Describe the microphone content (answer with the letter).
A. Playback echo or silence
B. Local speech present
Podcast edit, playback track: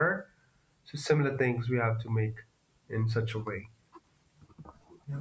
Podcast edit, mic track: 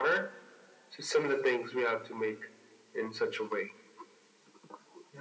A